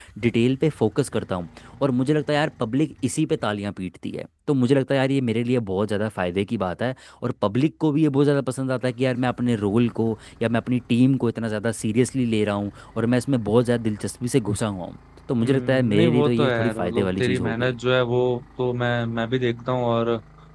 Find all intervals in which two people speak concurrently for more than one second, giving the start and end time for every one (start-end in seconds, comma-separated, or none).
15.4-17.7